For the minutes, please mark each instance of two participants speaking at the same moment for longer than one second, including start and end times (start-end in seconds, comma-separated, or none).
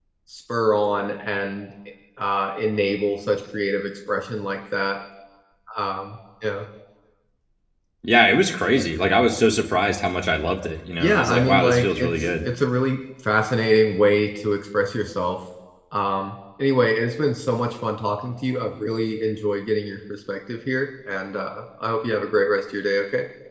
11.0-12.4